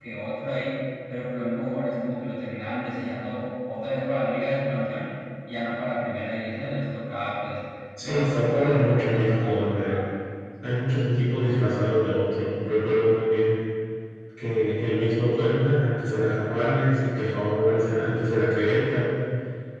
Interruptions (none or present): present